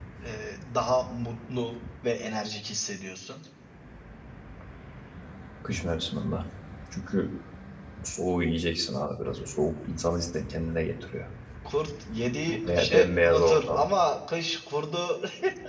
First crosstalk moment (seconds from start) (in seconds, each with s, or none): 12.5 s